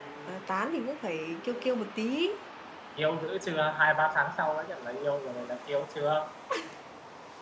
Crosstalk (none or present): none